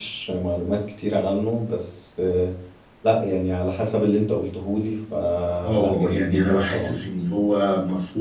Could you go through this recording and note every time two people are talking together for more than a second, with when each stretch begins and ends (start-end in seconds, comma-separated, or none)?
5.6-7.0